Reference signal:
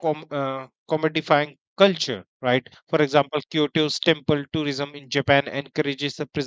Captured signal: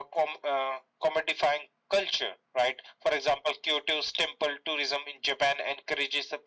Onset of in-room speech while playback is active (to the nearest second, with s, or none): none